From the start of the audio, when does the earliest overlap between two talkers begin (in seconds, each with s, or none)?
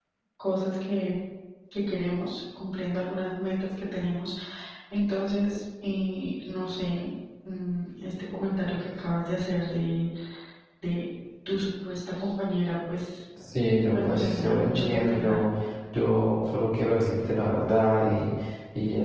13.9 s